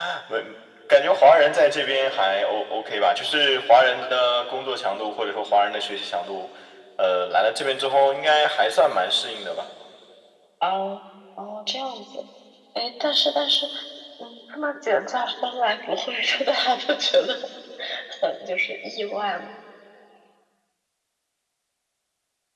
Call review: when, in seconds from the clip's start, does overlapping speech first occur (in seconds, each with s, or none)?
none